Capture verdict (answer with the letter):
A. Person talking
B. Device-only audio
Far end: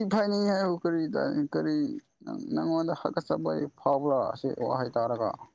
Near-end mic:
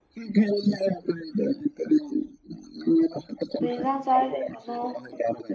A